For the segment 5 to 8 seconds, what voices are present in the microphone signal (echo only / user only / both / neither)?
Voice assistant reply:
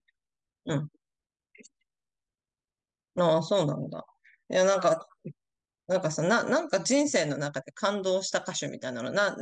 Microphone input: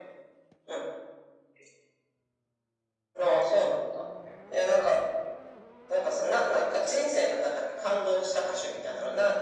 echo only